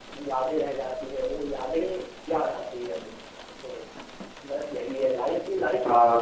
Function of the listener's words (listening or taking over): taking over